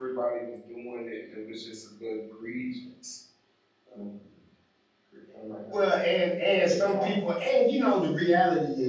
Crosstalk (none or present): present